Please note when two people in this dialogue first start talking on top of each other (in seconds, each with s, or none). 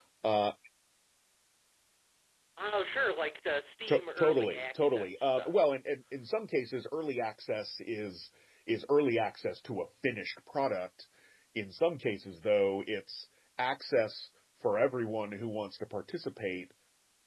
3.9 s